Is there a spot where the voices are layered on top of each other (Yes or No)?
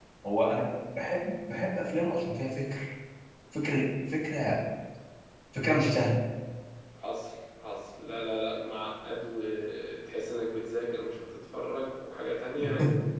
No